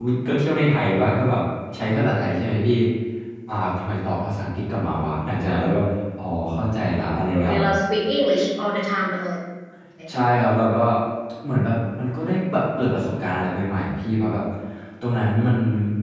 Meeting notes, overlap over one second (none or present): none